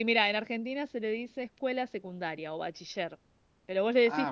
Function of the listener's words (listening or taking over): taking over